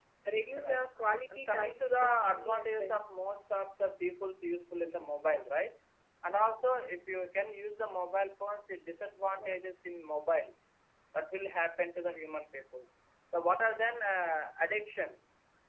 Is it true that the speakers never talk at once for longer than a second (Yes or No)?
No